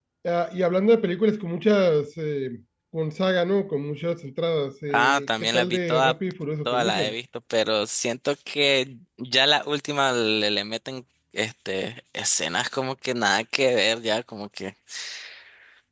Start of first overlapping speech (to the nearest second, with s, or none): 5 s